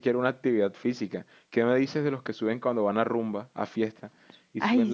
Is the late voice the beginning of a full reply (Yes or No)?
No